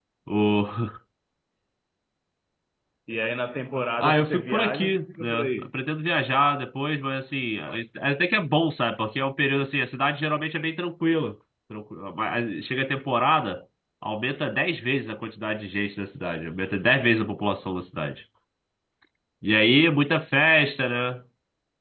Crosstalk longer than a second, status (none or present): present